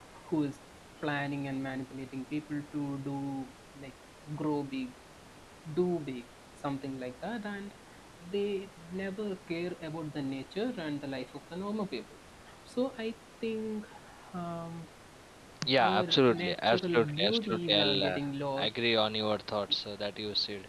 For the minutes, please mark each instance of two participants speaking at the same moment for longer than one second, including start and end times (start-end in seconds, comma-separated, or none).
15.8-18.2